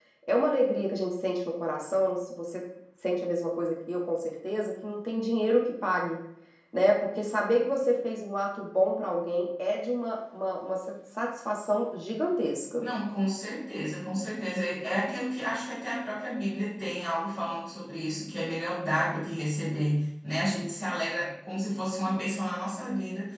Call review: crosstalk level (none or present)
none